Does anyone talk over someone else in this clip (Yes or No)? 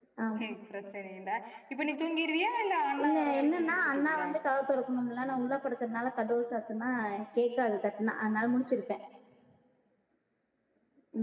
Yes